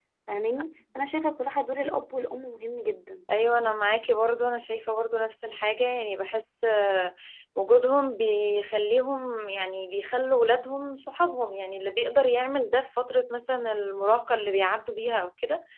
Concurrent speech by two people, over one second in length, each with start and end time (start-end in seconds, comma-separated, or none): none